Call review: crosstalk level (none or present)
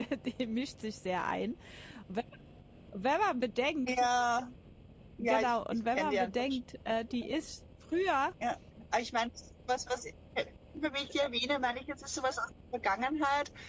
present